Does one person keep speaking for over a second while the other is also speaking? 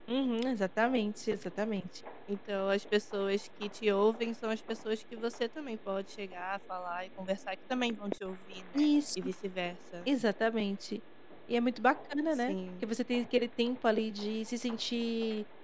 No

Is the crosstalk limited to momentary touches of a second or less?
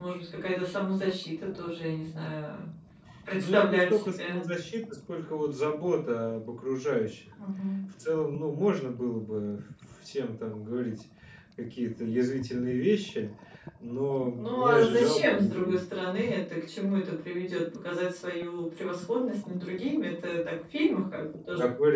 No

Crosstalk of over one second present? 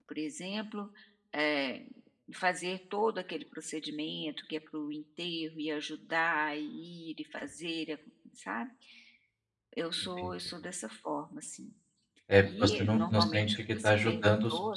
Yes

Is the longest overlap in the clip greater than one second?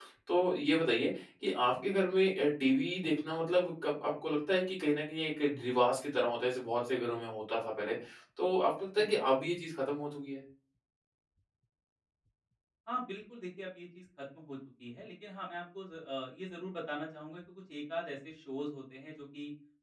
No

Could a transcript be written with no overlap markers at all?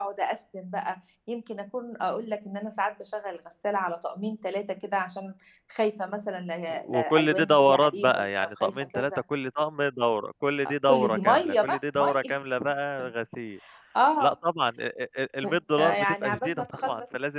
No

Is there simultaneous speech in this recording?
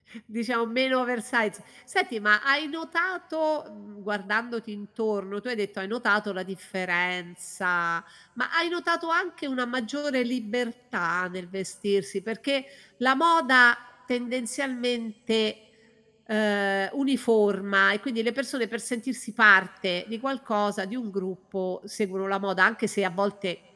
No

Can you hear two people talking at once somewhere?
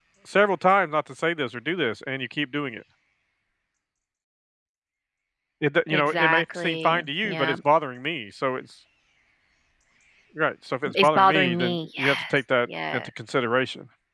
Yes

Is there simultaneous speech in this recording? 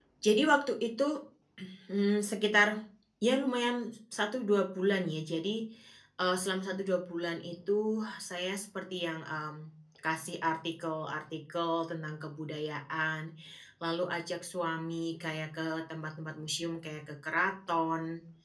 No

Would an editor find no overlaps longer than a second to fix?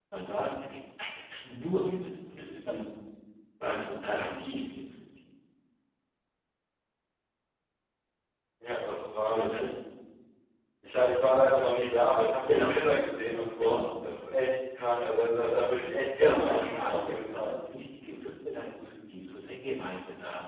No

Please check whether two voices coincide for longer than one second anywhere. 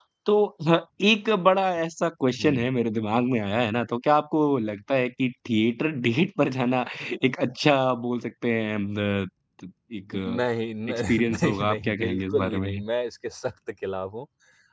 Yes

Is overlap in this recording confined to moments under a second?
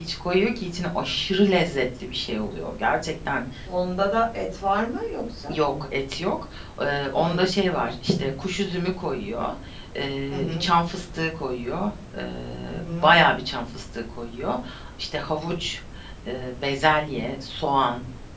Yes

